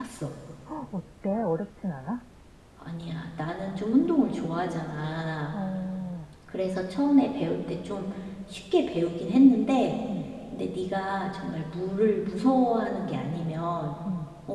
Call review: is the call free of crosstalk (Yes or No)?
Yes